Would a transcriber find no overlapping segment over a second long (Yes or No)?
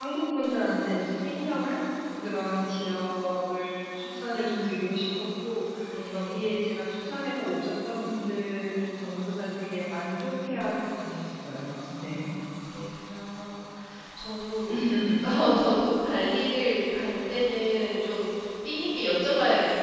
Yes